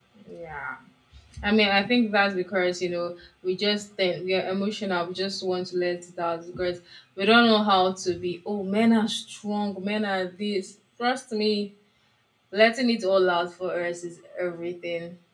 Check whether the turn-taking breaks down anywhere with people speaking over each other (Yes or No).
No